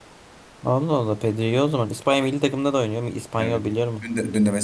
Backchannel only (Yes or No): No